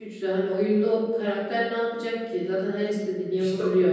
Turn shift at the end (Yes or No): Yes